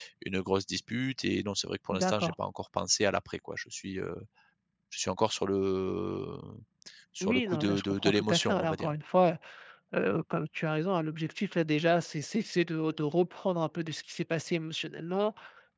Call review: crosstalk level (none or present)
present